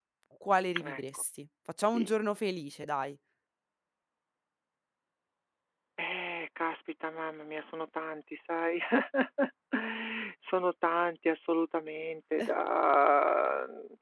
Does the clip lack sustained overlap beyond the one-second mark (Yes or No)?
Yes